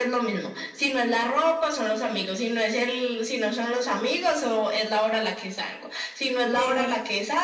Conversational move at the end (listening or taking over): listening